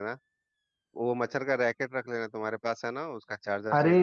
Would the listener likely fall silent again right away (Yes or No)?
No